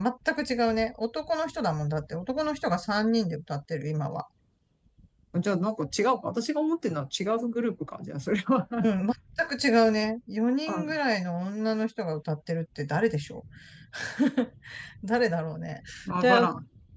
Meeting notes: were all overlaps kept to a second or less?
Yes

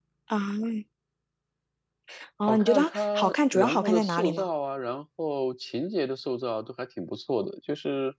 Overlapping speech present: Yes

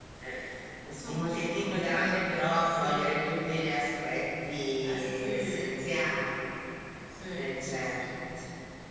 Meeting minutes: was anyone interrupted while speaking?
Yes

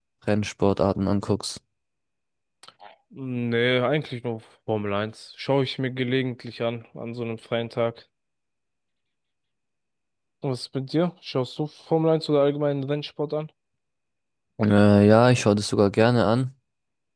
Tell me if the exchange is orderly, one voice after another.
Yes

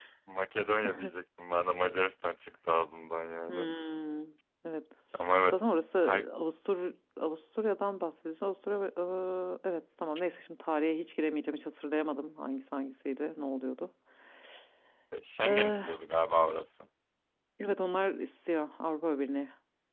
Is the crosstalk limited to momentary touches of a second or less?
Yes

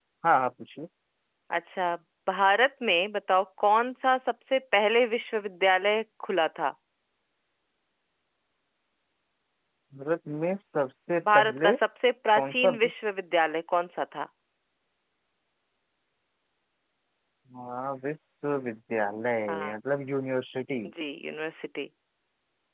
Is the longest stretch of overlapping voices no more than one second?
Yes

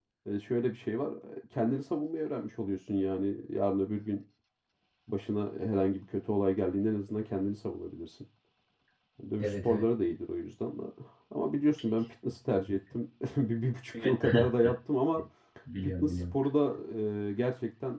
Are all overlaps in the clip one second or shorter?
Yes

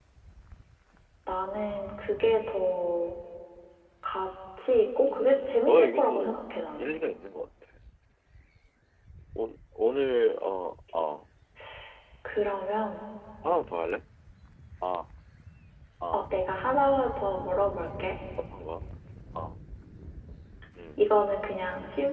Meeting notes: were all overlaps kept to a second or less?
No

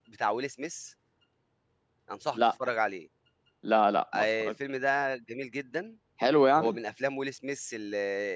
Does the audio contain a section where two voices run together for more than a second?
No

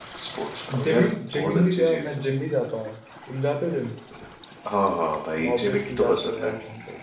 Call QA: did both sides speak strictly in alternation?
No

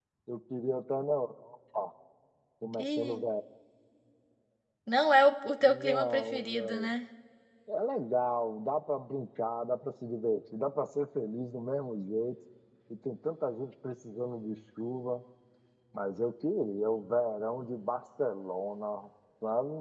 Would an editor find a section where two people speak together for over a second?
Yes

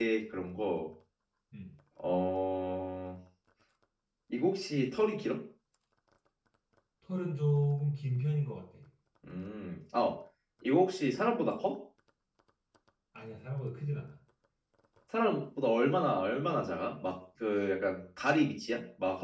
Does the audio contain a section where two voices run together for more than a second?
No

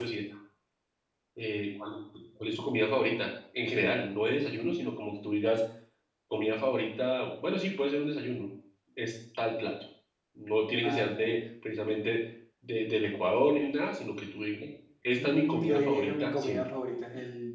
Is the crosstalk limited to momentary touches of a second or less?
No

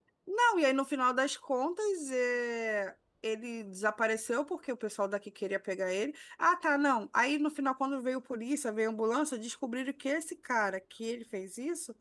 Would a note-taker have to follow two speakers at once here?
No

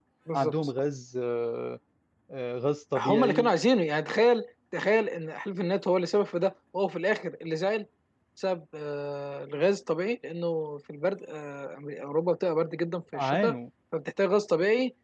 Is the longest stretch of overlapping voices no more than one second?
Yes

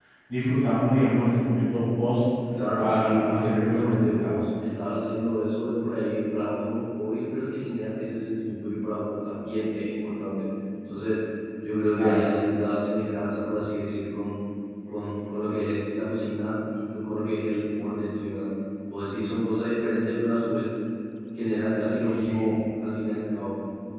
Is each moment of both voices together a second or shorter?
No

